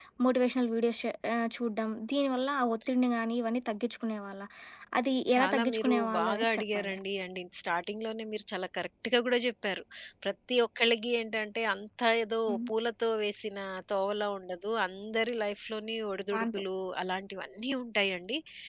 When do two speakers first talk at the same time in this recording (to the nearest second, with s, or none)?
5 s